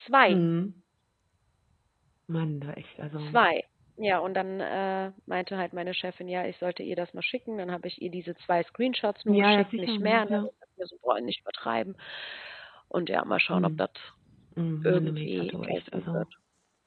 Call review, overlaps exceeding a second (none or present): present